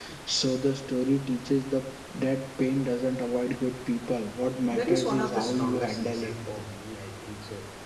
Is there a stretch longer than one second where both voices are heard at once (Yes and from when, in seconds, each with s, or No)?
Yes, from 4.7 s